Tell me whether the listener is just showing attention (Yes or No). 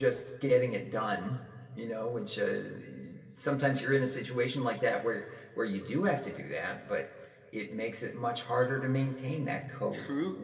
No